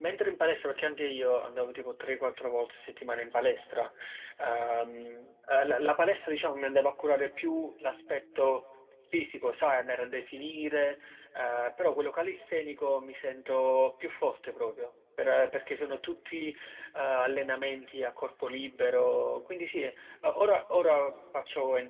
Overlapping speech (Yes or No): No